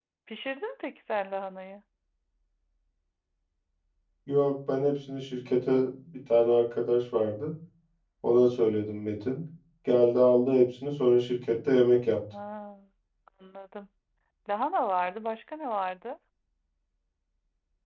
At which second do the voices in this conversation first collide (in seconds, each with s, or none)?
none